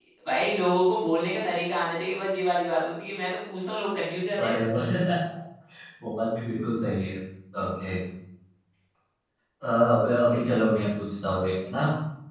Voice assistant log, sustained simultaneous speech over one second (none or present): none